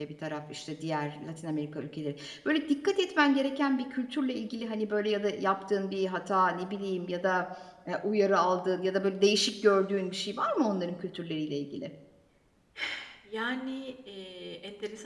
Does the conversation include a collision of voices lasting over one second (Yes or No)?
No